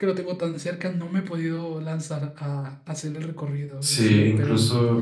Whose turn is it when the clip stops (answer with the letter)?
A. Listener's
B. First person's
A